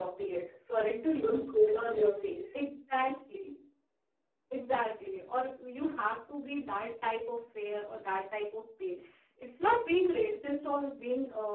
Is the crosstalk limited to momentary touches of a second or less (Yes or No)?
Yes